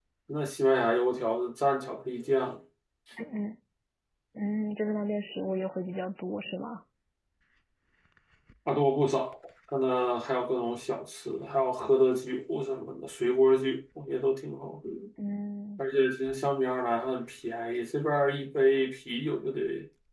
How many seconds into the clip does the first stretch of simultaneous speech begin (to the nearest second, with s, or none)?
none